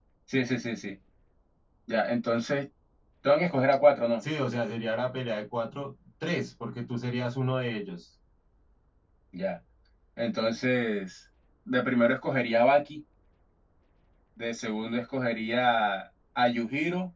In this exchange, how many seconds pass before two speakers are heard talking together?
none

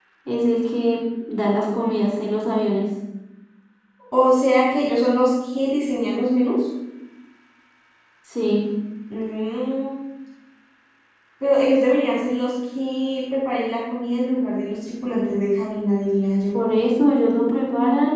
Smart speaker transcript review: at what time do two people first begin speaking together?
none

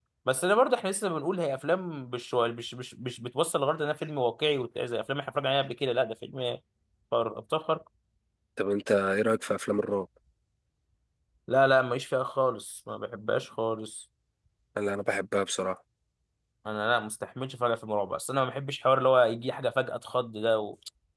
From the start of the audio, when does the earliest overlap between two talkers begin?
none

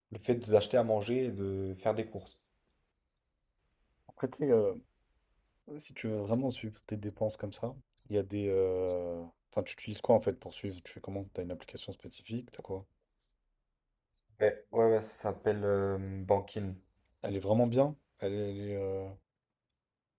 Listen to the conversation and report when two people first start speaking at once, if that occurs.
none

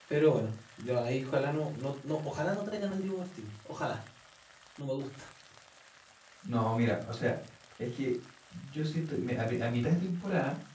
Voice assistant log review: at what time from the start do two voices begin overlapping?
none

